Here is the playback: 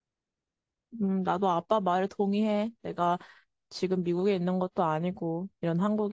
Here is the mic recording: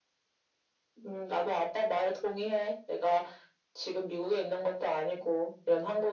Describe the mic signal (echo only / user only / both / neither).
echo only